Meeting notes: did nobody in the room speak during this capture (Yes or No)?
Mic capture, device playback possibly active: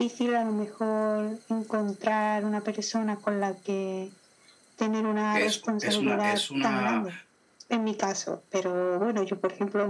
No